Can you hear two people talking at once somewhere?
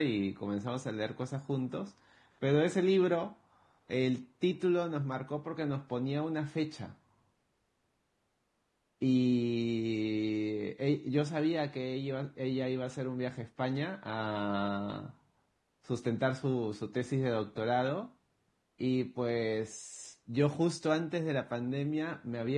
No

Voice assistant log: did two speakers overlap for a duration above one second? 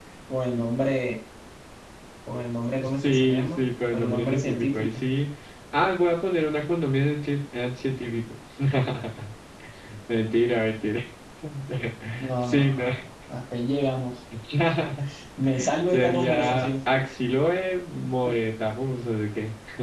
Yes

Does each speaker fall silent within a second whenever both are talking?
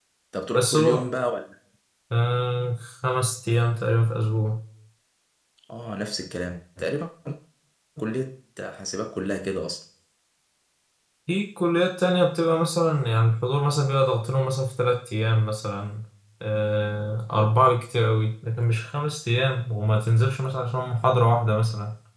Yes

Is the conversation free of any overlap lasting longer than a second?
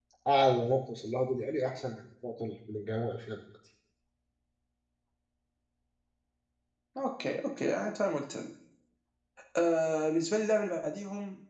Yes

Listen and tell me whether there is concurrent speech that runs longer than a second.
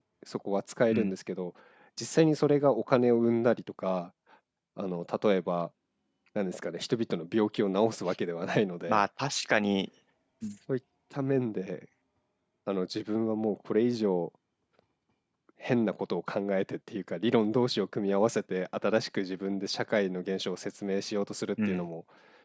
No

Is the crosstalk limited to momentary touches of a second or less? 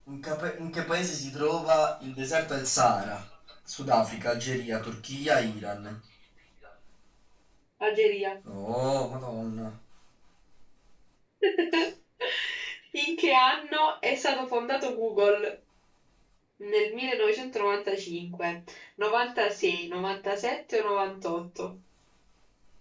Yes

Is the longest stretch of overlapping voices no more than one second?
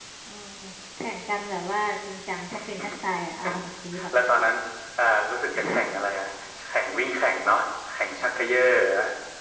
Yes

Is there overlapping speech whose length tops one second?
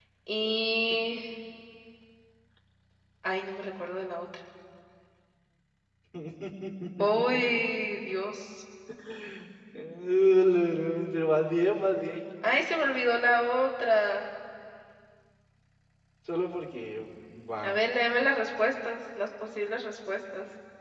No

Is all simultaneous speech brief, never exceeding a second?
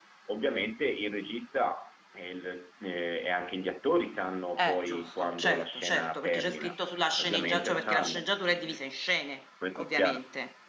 No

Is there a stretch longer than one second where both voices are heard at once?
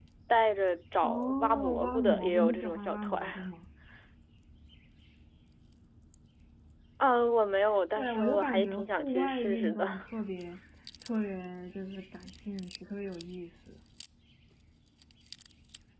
Yes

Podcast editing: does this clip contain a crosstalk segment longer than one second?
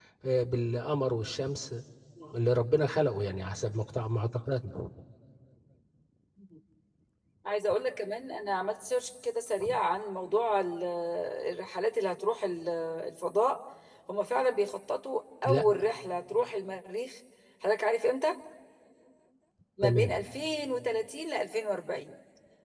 No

